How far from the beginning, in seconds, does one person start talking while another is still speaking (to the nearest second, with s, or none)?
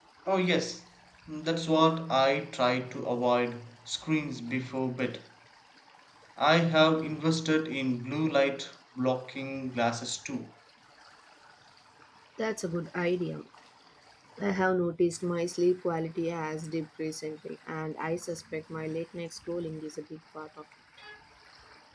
none